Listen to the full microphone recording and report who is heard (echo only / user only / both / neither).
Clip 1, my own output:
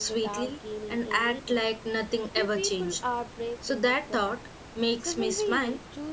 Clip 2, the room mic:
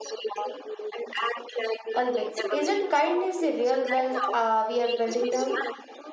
both